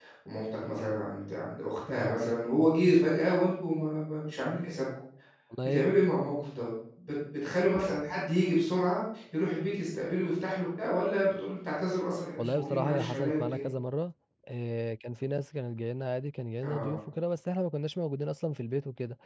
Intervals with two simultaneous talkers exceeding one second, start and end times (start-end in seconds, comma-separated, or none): 12.4-13.7